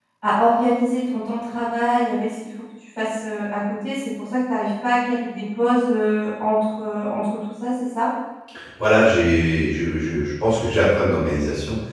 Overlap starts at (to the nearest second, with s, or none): none